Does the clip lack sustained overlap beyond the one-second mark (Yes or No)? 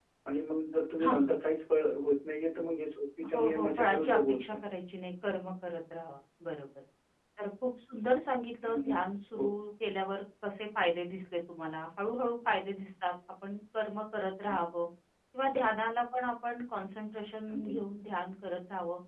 No